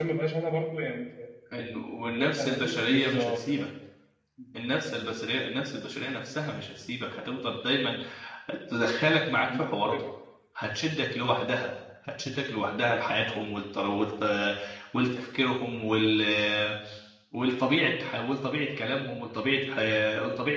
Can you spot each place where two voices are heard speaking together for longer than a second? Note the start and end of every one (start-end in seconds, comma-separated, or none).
2.1-3.6